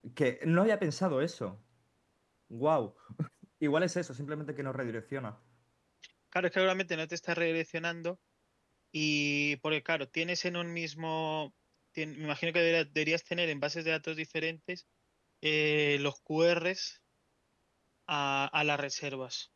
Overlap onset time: none

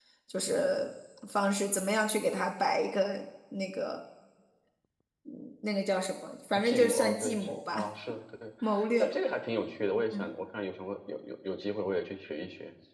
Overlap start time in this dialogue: 6.6 s

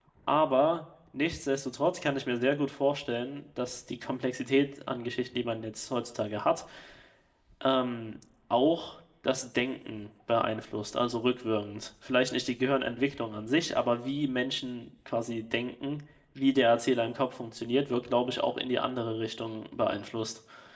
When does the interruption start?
none

